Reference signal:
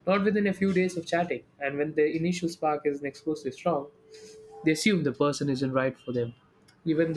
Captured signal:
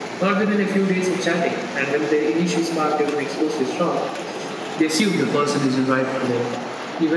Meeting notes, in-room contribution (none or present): none